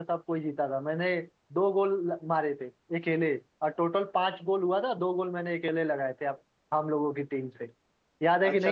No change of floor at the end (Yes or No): No